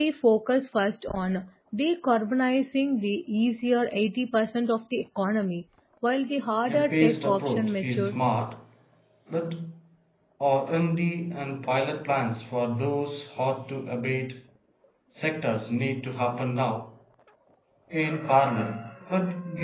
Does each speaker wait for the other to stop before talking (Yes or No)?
No